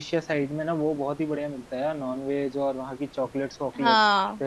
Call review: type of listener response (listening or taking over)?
listening